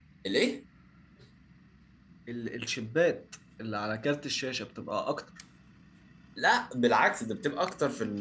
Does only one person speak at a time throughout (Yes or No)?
Yes